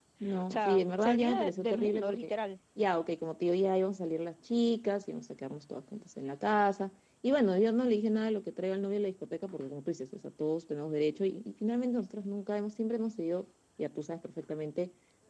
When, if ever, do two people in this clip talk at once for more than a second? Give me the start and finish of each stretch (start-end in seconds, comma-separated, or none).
0.5-2.3